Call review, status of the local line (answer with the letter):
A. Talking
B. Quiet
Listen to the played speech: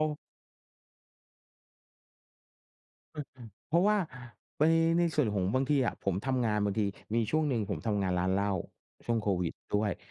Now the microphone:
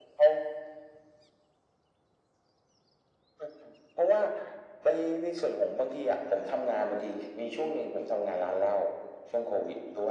B